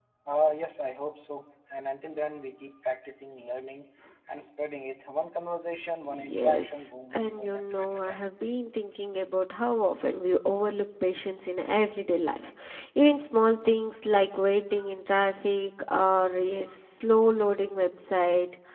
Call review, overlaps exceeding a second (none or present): present